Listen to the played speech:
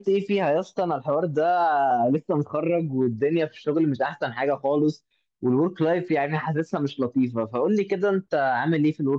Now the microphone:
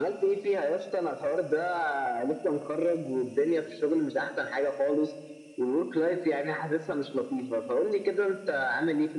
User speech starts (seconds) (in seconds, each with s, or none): none